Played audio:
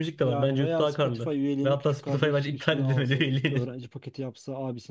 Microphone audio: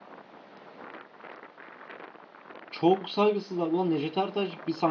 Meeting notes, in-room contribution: present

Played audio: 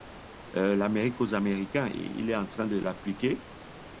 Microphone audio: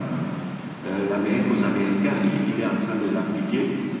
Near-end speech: none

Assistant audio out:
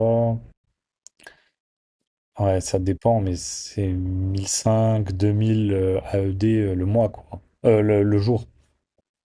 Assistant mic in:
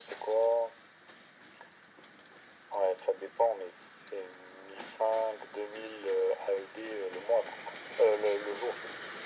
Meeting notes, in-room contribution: none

